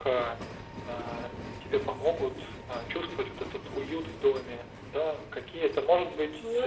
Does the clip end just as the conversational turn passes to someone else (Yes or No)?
No